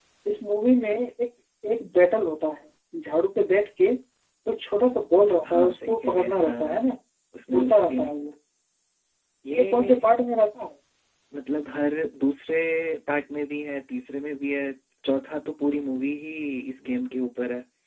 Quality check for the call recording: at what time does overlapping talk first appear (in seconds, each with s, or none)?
5.5 s